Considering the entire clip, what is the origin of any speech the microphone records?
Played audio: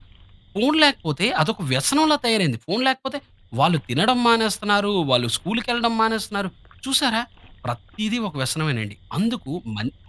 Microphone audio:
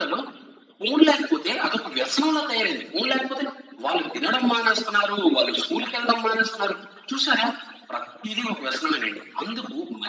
echo only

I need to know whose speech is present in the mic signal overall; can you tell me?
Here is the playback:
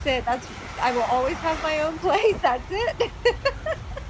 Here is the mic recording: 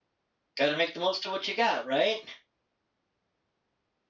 user only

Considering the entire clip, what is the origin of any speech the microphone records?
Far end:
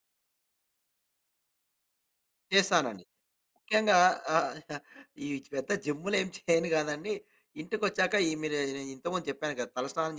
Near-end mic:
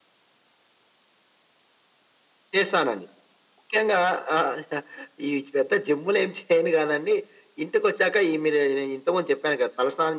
echo only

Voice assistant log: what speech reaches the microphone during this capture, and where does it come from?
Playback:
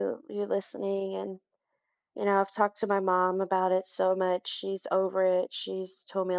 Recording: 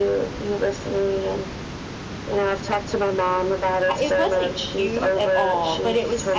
both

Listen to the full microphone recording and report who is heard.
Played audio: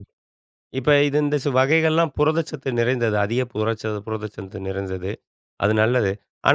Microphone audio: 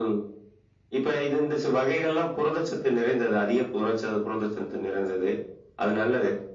echo only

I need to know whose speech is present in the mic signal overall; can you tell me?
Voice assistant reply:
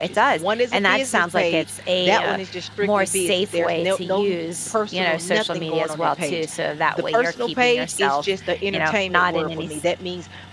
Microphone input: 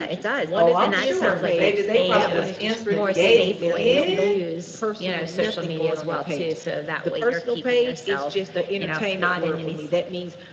both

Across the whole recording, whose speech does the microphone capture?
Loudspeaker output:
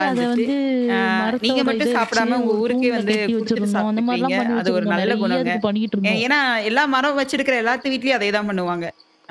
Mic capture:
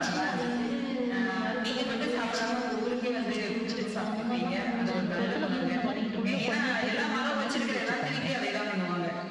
both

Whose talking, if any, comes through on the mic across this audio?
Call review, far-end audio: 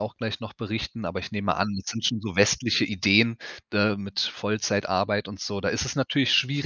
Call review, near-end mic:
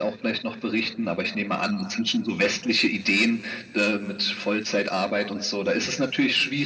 echo only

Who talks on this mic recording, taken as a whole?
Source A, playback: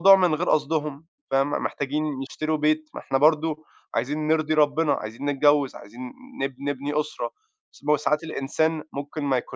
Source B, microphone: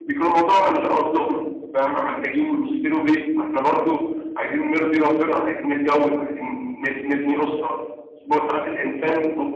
echo only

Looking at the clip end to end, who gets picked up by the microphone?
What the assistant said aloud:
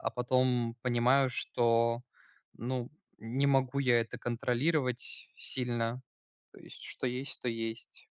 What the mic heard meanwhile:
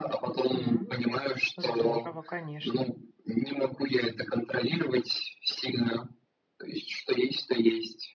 both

